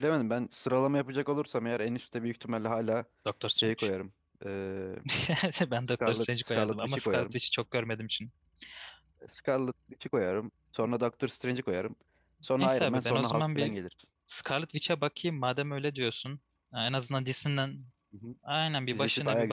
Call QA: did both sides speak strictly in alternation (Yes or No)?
No